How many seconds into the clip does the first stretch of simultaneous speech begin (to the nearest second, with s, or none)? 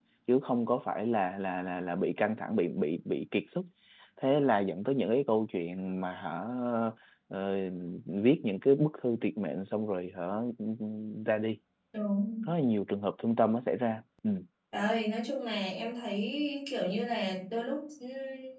none